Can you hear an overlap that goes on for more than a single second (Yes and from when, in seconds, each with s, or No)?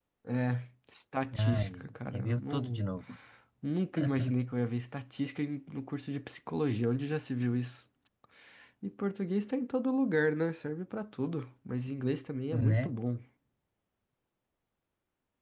Yes, from 1.4 s